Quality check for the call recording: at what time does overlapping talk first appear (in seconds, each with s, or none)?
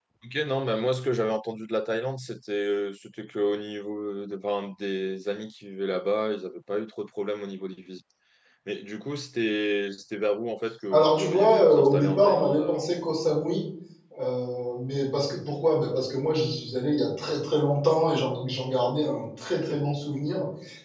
10.9 s